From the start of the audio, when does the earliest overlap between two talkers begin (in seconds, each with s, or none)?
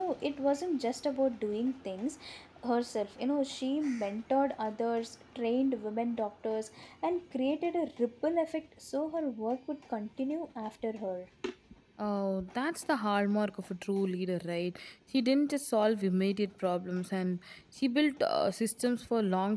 none